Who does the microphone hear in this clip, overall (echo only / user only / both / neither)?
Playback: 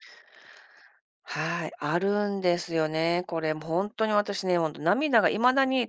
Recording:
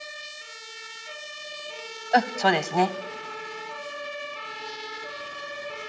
user only